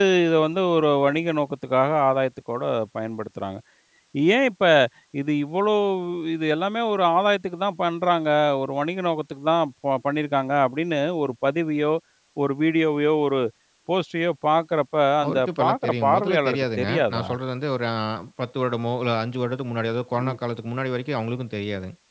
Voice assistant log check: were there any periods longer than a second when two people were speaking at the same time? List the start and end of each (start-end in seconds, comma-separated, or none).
15.2-17.3